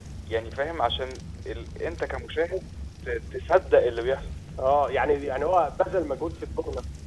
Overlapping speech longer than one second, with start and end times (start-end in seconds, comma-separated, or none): none